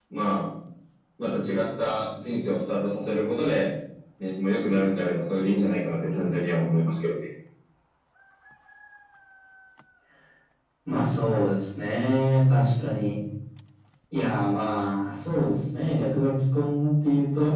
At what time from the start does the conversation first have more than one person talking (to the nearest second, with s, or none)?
none